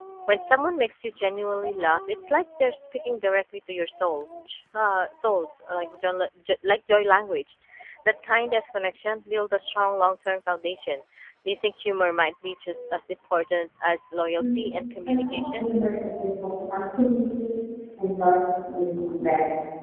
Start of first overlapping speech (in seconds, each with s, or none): 14.4 s